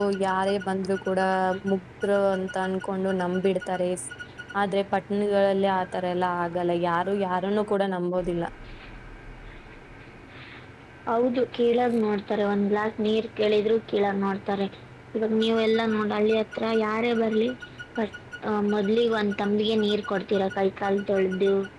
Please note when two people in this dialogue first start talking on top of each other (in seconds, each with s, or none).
none